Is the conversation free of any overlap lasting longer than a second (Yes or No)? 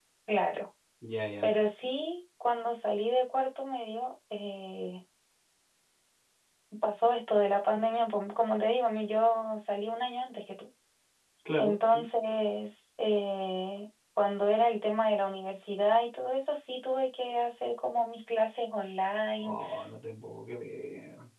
Yes